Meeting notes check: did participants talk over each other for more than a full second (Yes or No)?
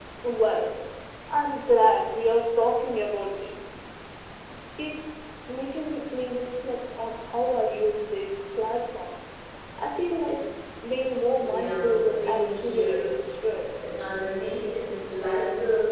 Yes